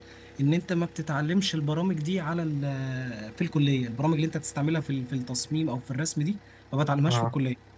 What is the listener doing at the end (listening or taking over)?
listening